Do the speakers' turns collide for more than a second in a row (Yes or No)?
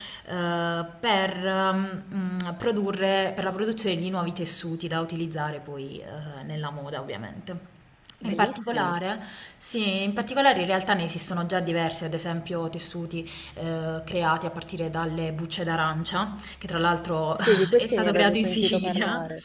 Yes